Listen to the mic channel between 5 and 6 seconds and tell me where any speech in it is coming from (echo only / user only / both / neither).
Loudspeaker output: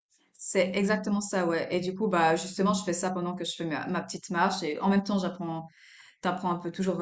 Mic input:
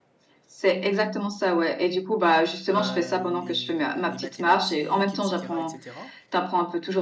both